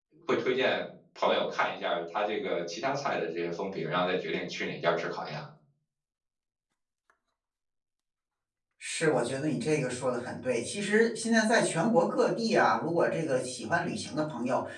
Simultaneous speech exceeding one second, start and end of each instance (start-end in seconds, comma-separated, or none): none